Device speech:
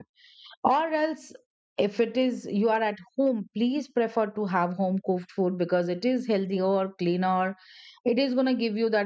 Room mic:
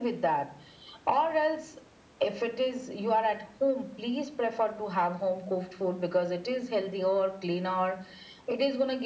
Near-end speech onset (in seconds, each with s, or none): none